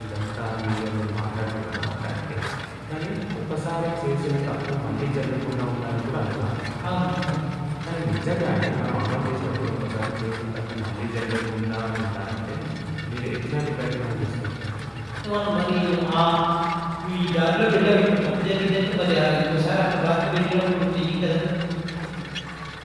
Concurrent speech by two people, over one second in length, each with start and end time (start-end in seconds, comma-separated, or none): none